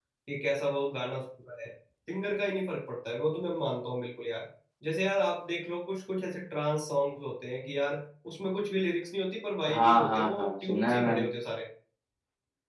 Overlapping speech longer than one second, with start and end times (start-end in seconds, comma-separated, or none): 9.7-11.3